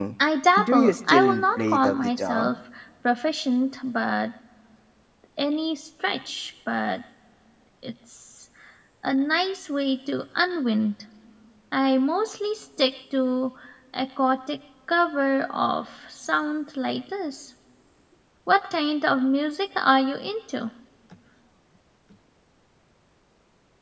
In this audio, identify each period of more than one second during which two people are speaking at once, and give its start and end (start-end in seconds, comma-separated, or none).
0.6-2.5